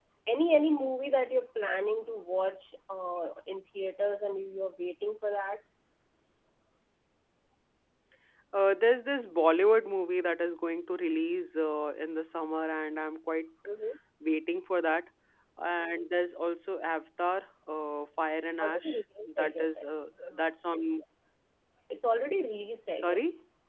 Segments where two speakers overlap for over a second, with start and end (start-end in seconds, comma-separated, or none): 18.6-19.9